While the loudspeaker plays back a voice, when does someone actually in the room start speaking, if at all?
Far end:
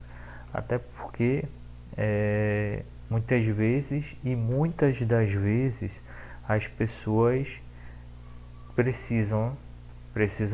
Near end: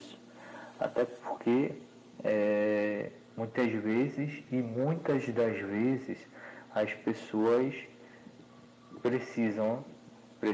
none

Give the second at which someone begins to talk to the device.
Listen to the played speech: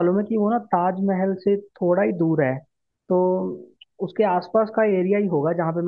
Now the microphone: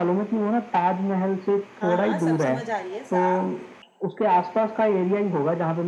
1.8 s

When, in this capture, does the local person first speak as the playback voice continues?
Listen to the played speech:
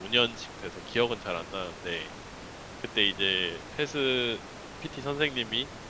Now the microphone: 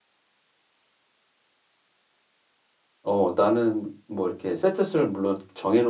3.0 s

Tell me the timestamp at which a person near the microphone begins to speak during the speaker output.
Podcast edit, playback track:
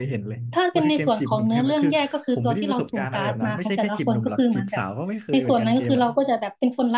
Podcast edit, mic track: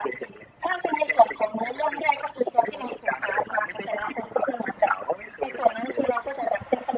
none

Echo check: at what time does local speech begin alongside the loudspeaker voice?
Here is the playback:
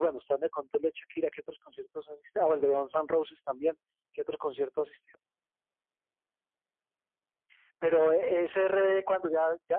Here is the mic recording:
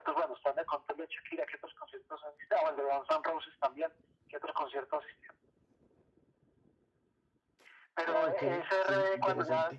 8.0 s

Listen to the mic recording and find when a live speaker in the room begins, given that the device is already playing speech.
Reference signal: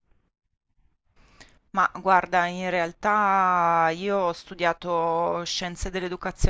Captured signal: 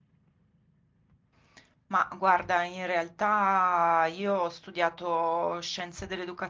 none

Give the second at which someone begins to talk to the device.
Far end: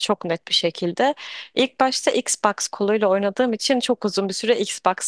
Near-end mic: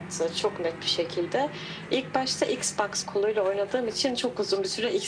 none

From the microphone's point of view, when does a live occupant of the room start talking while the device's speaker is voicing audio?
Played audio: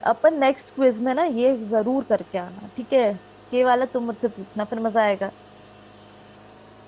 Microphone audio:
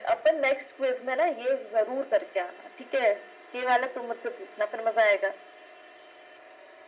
none

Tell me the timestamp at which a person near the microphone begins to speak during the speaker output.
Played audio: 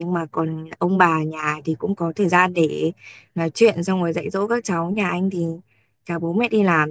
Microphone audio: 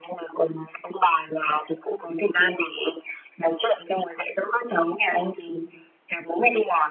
none

